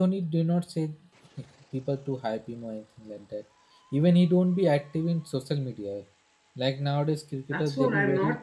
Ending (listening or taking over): taking over